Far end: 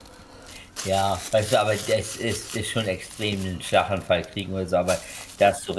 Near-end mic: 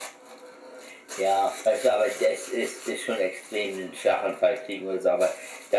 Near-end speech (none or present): none